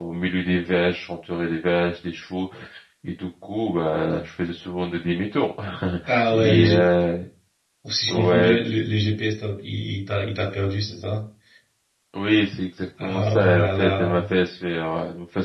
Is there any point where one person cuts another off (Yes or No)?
Yes